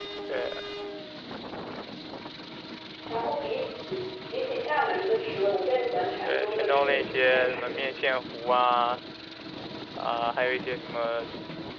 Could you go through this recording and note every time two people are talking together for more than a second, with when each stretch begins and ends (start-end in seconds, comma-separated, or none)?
6.2-7.8